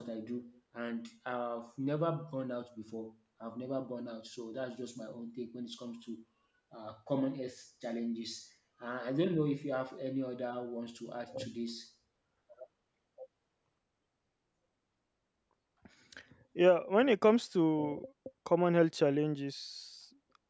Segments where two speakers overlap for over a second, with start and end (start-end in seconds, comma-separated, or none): none